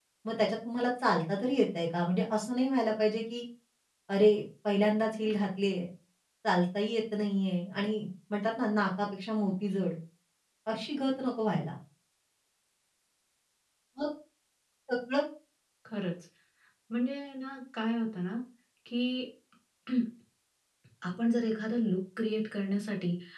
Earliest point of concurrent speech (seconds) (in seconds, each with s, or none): none